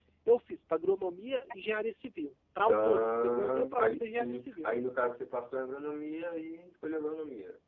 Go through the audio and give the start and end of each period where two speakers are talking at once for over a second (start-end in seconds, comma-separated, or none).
2.7-4.8